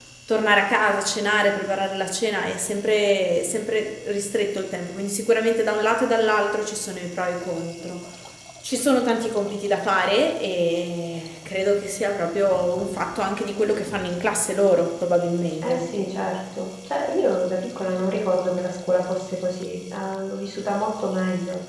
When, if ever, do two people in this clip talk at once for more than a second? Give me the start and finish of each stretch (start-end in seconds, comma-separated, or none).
none